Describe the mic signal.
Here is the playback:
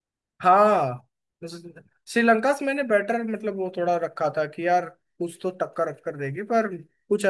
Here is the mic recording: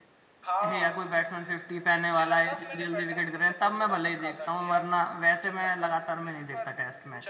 both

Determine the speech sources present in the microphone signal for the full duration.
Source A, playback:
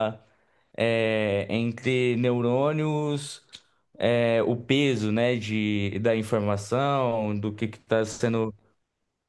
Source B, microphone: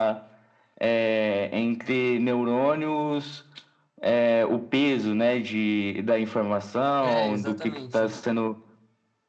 both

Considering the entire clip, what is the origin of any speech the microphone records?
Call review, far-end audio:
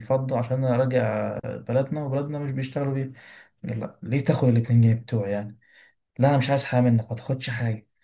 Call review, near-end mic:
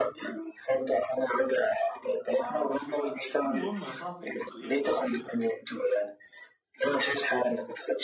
both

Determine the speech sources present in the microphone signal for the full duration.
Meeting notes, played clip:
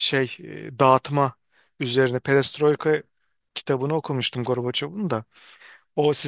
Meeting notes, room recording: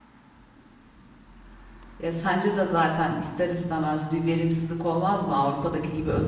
user only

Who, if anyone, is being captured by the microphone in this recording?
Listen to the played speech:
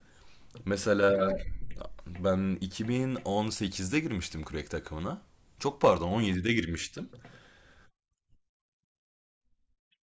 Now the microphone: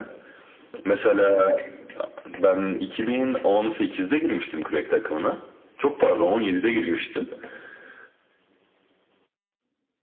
echo only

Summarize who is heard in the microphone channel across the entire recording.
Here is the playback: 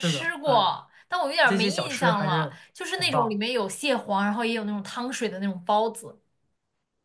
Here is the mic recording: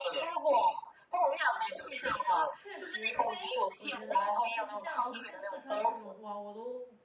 both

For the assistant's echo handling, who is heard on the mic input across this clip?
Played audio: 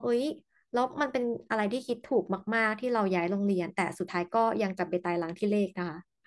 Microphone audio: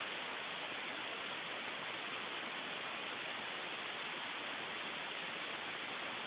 neither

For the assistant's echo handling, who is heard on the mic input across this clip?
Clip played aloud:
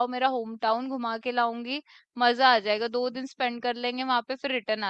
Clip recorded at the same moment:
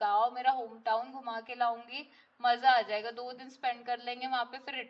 echo only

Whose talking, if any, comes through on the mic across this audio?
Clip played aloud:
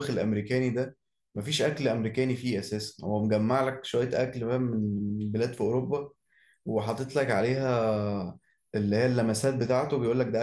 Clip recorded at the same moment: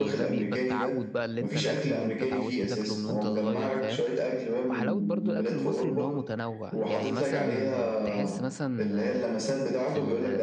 both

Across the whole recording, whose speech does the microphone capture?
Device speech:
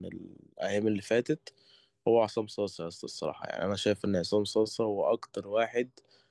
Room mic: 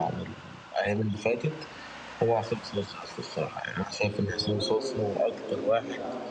both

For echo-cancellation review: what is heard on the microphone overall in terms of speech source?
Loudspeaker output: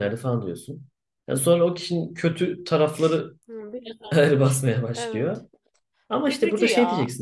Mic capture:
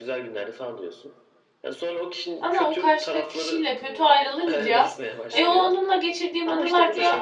both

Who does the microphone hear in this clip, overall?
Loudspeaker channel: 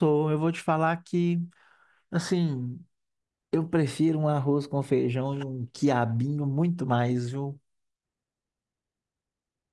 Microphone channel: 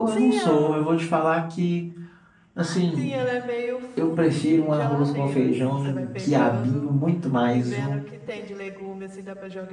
both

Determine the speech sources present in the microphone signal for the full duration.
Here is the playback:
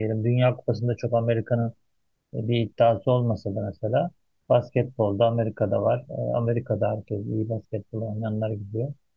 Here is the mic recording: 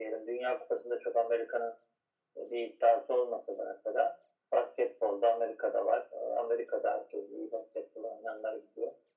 echo only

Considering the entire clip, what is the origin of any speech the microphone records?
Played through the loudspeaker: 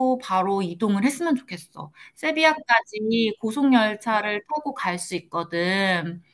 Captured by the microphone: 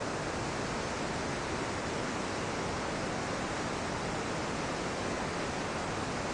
neither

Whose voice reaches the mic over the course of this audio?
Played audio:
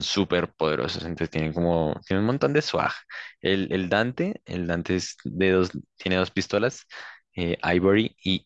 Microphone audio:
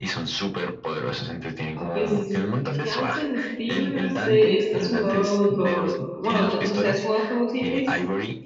both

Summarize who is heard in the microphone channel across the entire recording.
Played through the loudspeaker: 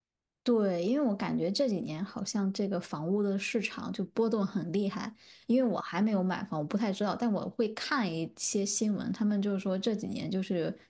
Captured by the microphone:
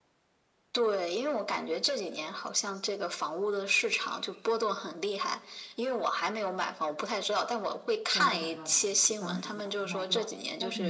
both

